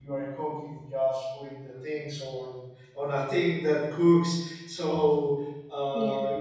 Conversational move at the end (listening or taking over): listening